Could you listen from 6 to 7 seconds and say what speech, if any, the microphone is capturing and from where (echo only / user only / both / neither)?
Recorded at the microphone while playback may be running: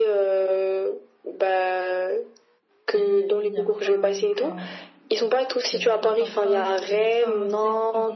both